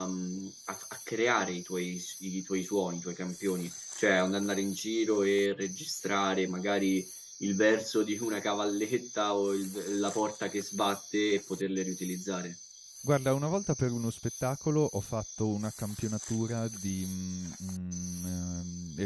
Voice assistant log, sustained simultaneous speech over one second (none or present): none